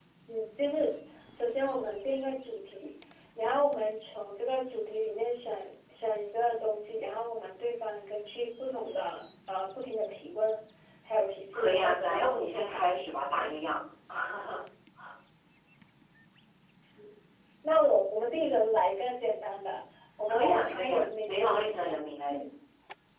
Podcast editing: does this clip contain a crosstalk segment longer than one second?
Yes, from 11.5 s

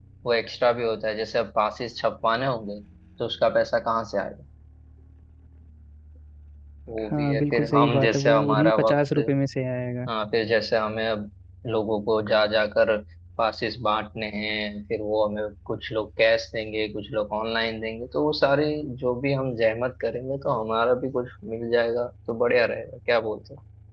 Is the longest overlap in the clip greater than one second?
Yes, from 7.1 s

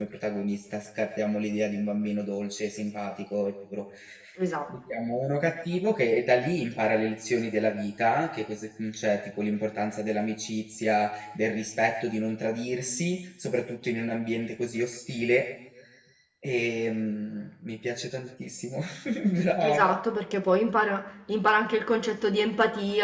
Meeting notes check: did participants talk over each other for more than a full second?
No

